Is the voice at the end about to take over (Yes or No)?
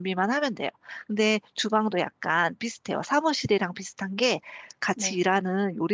No